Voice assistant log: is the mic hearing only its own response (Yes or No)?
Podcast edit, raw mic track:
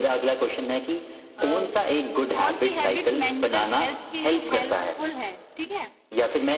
No